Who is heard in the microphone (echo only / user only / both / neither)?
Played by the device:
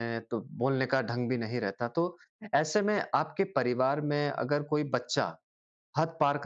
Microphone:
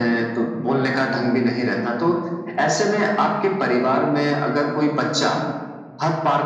echo only